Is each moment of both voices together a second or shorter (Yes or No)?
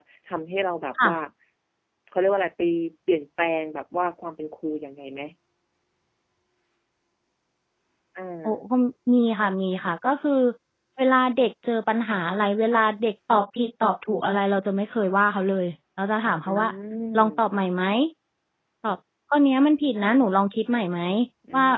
Yes